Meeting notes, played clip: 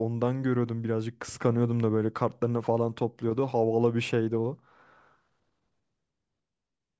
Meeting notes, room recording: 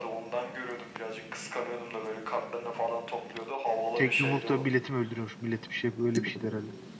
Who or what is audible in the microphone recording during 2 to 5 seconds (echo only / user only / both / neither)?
both